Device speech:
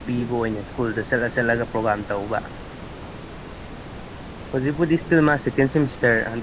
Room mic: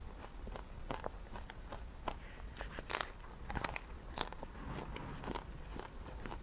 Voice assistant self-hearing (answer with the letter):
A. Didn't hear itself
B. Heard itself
A